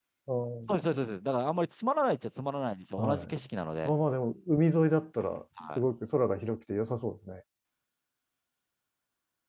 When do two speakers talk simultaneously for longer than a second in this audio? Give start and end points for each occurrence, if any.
none

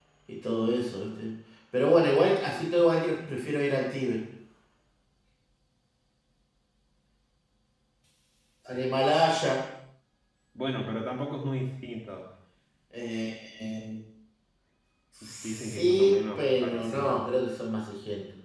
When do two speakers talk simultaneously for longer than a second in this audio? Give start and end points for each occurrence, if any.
15.4-17.3

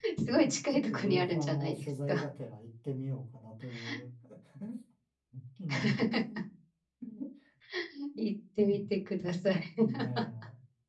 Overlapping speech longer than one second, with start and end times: 0.7-2.2

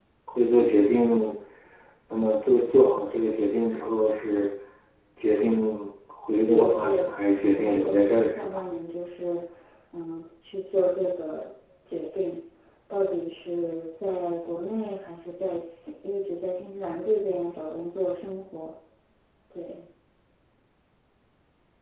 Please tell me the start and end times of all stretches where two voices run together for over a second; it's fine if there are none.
6.5-8.5

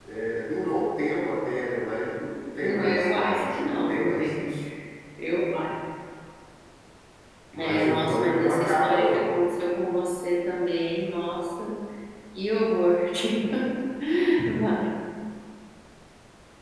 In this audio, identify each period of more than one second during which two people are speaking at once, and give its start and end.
2.6-4.5, 7.6-9.3

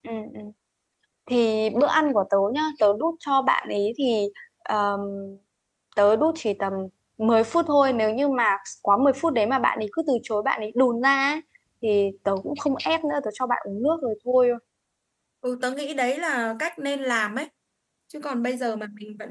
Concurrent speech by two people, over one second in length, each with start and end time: none

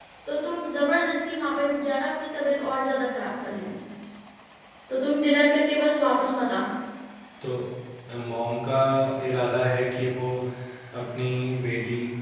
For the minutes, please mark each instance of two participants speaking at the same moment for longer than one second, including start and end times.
none

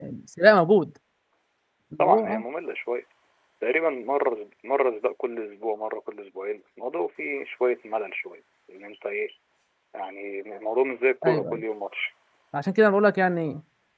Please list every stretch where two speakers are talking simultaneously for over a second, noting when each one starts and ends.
none

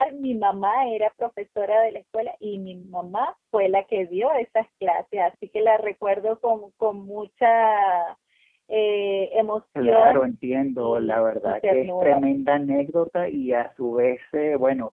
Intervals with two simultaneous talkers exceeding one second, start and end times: 10.8-12.2

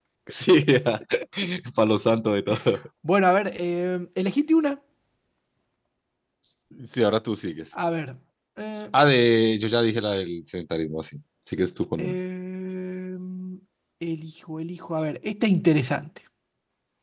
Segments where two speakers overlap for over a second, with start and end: none

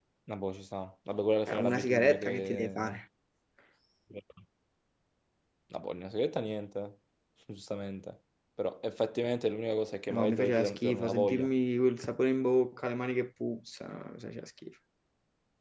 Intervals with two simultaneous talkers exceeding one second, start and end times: 1.5-3.0, 10.1-11.5

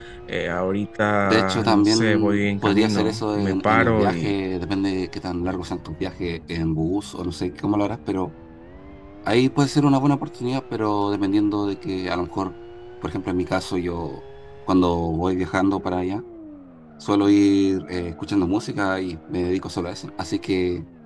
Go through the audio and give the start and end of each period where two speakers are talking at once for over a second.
1.2-4.3

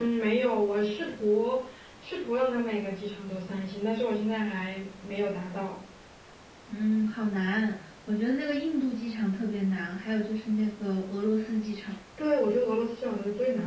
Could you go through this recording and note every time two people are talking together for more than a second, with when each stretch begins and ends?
none

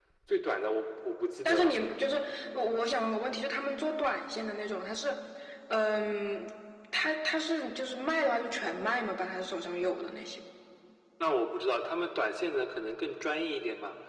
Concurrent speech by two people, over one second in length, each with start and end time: none

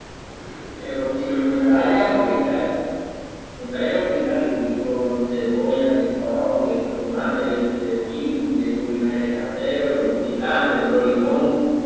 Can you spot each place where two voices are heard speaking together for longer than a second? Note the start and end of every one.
1.1-2.3

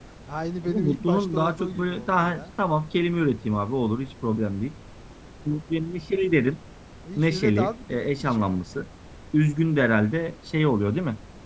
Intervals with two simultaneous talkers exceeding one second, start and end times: 0.6-2.4, 7.2-8.6

